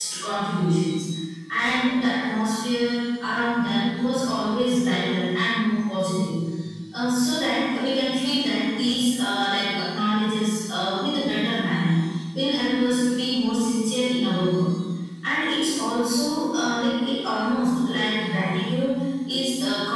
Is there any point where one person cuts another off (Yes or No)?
No